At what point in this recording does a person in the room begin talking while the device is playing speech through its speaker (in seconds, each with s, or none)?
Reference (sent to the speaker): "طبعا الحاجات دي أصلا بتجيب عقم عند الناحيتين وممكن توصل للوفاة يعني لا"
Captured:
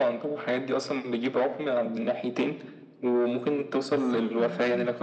3.9 s